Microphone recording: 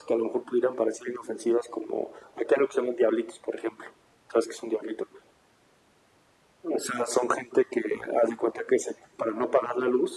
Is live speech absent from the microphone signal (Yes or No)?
Yes